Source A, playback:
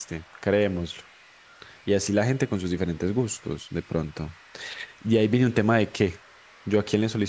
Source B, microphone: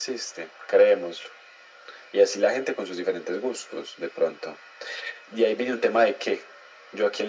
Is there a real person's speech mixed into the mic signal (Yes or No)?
No